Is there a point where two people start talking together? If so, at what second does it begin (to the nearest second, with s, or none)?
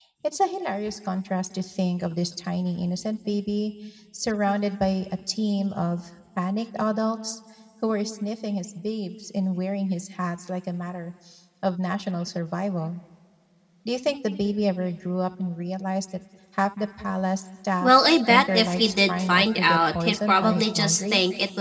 18 s